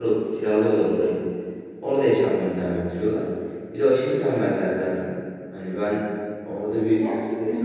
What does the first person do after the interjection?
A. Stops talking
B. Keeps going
B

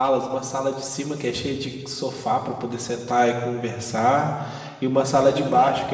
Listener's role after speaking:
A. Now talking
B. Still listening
B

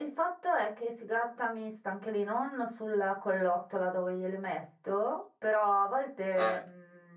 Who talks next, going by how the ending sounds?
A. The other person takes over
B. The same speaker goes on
B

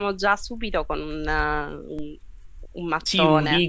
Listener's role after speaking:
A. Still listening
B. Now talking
B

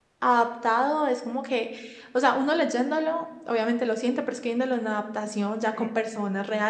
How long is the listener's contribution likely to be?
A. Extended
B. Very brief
B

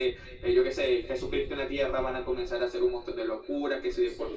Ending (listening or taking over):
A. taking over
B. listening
A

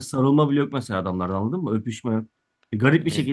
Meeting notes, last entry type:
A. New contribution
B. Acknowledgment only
B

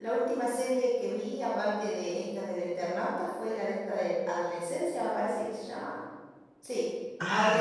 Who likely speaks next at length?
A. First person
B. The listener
A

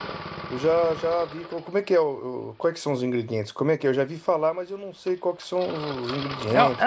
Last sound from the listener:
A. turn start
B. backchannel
A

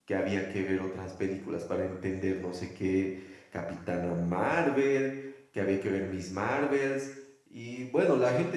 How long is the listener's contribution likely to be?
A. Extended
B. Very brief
B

